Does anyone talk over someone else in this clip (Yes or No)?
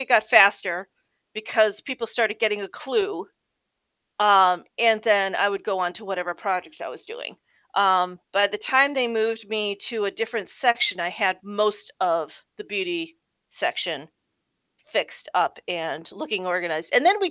No